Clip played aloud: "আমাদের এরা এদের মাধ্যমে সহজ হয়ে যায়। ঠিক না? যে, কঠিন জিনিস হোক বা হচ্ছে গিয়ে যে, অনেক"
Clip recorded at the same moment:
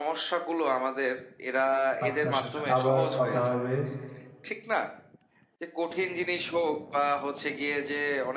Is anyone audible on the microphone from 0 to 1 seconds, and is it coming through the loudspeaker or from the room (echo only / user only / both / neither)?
echo only